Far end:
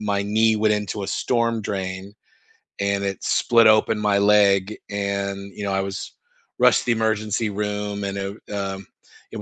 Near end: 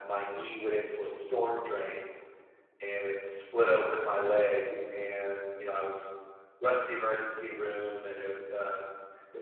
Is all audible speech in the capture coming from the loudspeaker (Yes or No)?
Yes